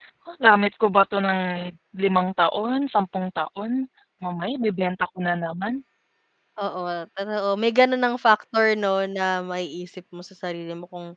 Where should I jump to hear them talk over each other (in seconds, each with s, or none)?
none